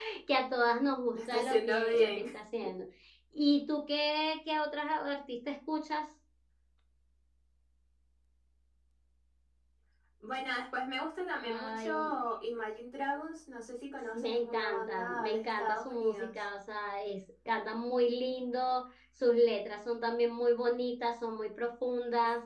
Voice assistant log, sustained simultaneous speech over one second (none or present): present